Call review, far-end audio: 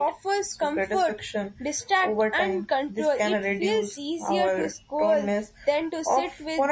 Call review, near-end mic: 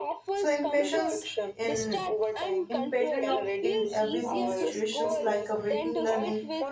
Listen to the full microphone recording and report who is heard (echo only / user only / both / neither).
both